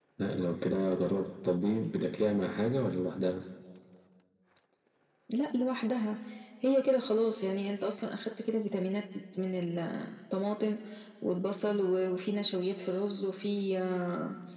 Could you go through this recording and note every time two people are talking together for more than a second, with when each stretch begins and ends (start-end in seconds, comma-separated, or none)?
none